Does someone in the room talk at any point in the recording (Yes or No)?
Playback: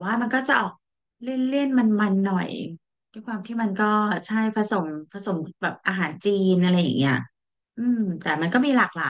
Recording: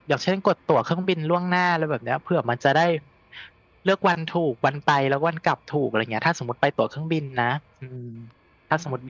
Yes